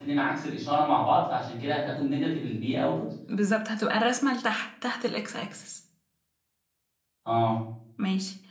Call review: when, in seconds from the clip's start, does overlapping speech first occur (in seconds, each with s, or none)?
none